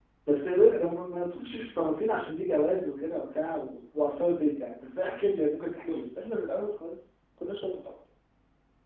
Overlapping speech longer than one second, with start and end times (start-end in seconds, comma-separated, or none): none